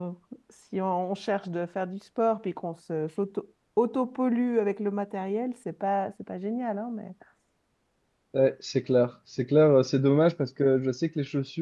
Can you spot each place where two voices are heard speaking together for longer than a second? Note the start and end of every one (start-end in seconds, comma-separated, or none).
none